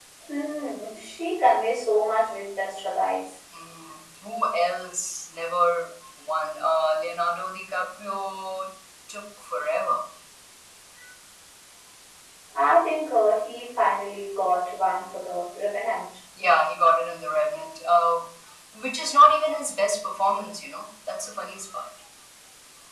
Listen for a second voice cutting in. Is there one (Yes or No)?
No